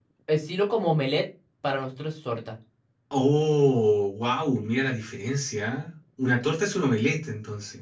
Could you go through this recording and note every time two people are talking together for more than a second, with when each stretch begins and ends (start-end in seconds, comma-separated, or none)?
none